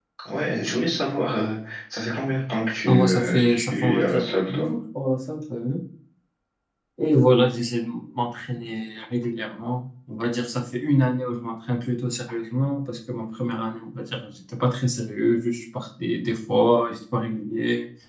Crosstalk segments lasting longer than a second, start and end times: 2.8-4.7

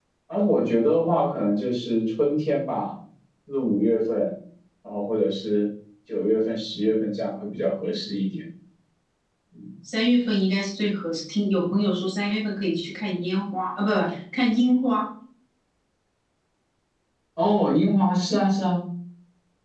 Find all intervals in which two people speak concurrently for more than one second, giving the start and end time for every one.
none

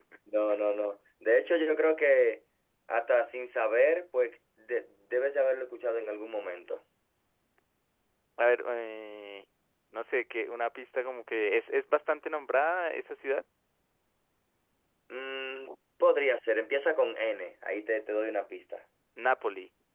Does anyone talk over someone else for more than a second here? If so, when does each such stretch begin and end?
none

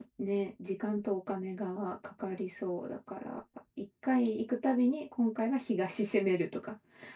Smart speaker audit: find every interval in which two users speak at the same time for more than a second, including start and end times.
none

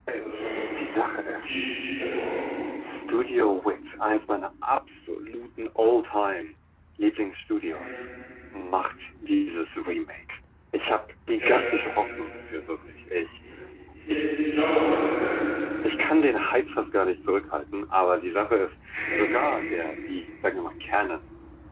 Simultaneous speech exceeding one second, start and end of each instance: none

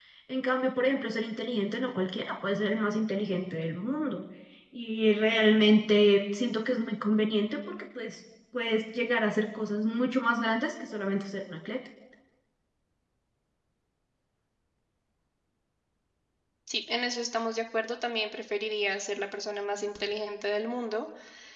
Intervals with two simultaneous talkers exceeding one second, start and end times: none

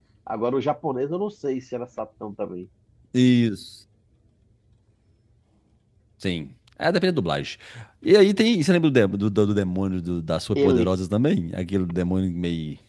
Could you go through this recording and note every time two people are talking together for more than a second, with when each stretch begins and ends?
none

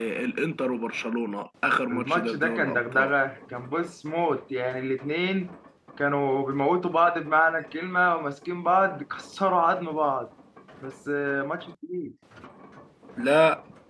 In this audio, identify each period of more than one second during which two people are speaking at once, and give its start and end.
1.9-3.1

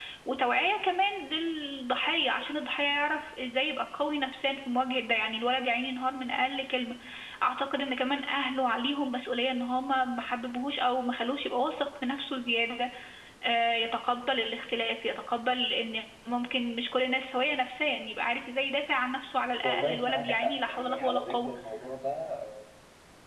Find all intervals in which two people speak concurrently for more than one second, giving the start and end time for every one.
19.6-21.5

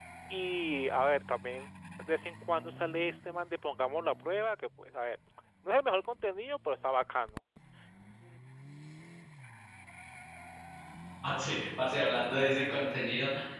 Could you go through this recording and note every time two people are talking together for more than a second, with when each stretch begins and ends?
none

